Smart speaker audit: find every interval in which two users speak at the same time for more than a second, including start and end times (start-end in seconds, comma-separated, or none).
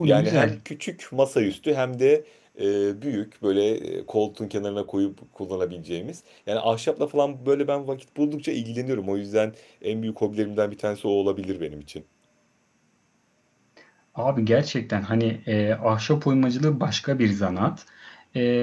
none